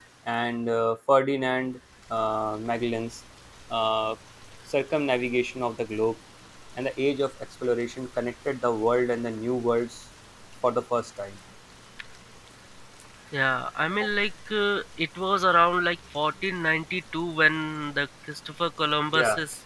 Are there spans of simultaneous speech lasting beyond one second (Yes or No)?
No